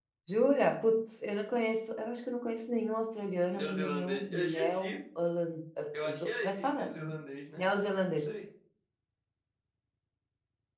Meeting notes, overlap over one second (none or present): present